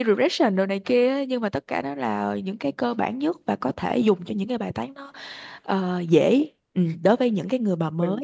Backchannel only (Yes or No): No